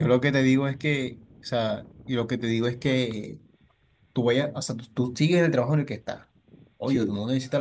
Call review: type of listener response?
listening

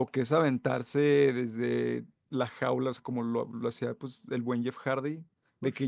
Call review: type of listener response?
listening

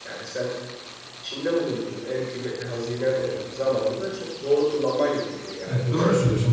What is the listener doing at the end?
taking over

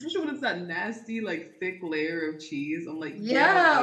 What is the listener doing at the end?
taking over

